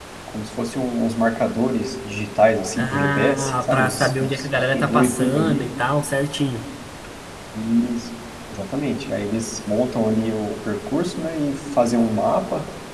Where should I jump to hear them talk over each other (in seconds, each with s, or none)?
2.8 s